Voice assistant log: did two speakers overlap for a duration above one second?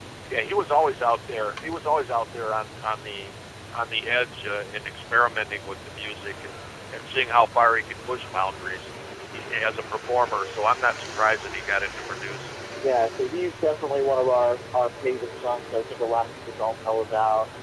No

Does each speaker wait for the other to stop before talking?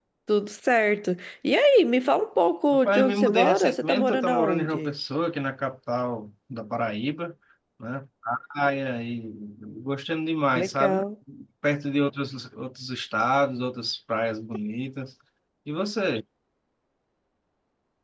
No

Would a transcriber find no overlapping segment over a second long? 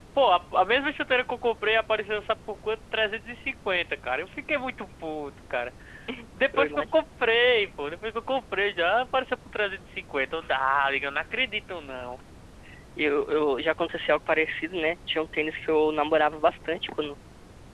Yes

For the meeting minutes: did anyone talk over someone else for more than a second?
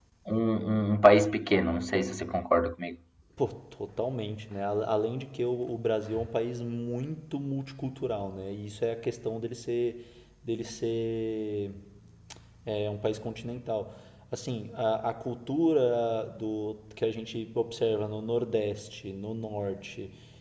No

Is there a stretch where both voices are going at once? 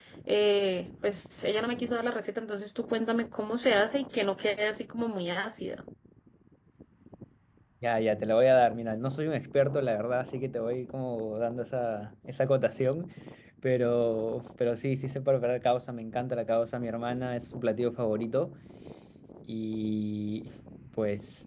No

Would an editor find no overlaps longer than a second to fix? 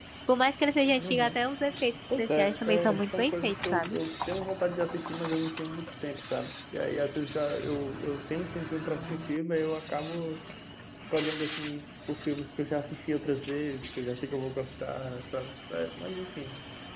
No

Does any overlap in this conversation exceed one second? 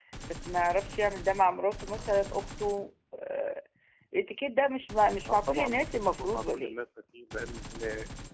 Yes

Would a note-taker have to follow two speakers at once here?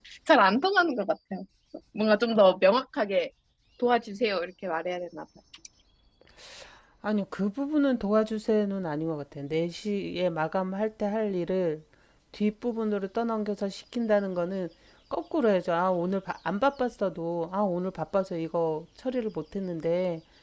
No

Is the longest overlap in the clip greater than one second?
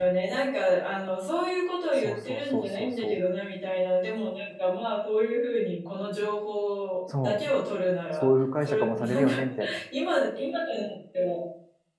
Yes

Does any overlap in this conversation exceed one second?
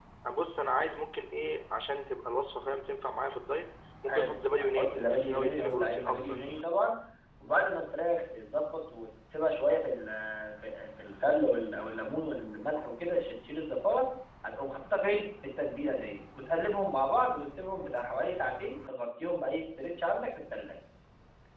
Yes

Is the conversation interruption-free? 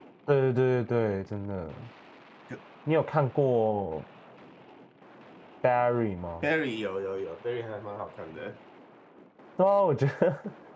Yes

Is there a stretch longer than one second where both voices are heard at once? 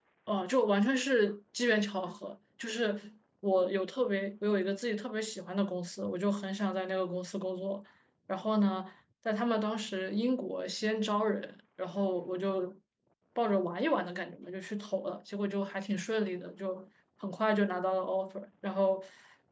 No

